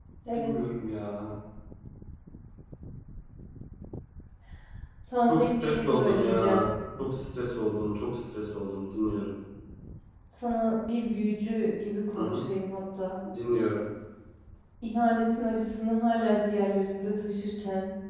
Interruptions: present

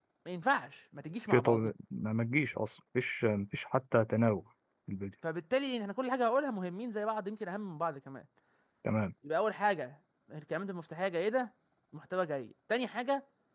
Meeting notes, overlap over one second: none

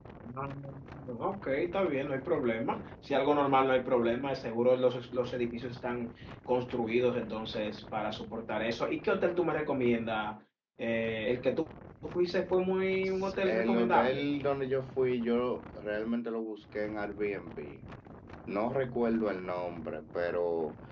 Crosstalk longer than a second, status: present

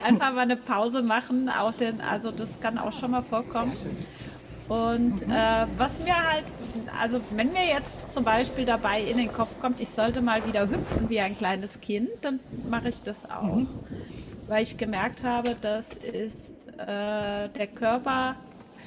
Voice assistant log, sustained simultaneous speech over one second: none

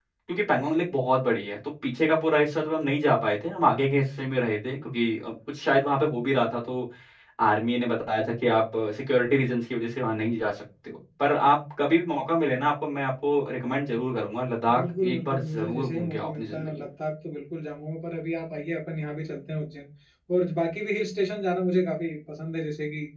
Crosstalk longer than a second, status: present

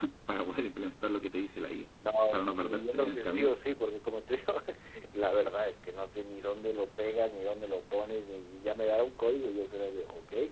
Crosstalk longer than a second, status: present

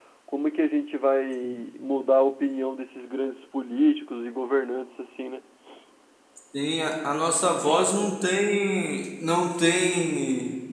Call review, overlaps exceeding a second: none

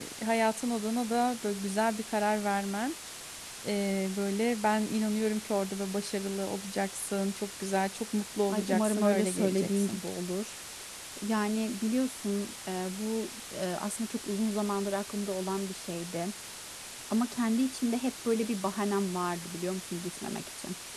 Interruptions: present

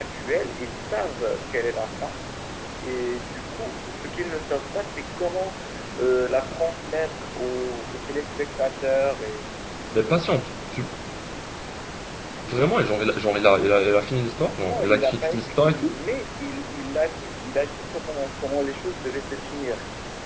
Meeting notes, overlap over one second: present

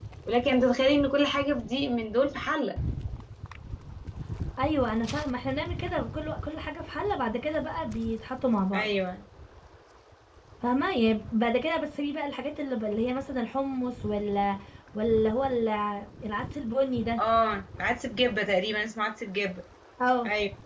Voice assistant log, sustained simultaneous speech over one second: none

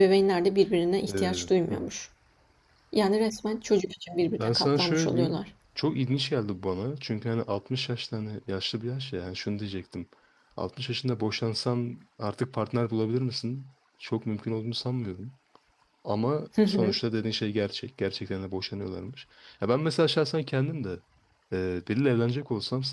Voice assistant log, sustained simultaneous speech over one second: present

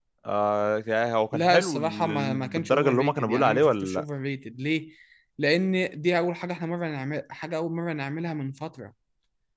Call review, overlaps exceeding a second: present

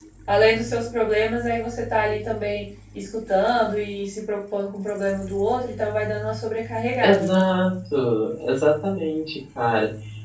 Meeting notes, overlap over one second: none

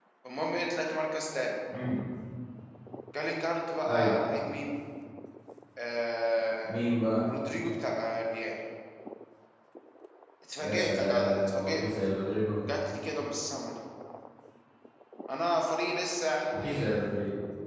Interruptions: present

